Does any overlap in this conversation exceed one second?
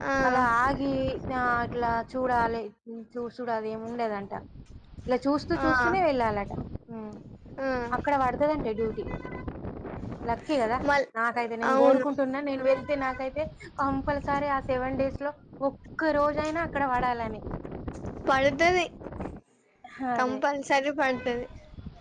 No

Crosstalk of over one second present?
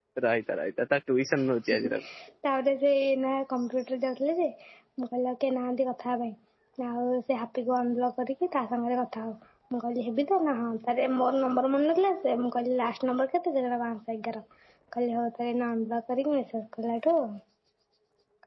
No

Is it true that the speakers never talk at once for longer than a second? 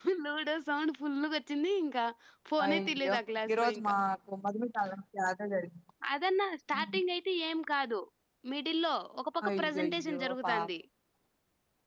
No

